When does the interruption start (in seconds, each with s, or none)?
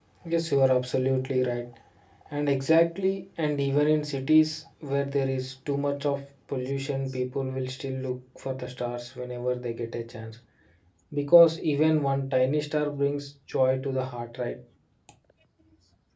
none